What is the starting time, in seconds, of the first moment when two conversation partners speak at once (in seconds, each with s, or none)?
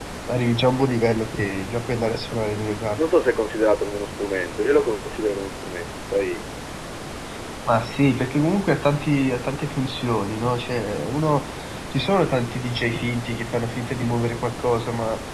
none